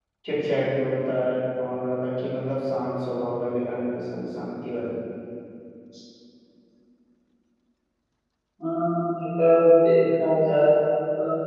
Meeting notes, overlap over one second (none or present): none